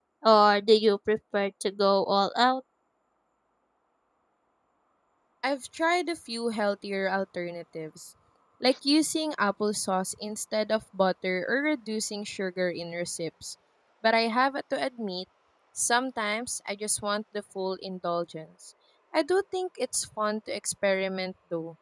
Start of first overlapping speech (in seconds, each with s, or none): none